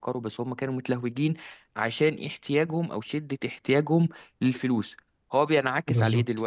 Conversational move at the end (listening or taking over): listening